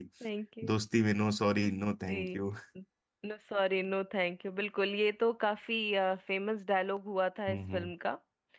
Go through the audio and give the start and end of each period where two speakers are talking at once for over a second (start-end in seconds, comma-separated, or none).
none